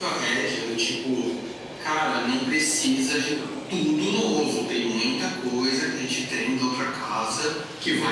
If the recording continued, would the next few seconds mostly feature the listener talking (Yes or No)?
No